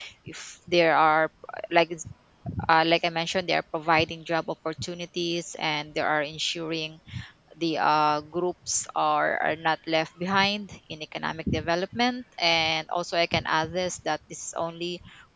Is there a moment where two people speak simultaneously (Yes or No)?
No